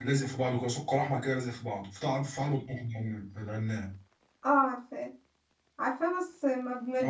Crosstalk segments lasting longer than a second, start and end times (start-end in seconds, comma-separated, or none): none